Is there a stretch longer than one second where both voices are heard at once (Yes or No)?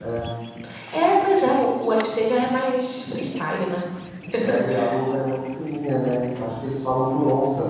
No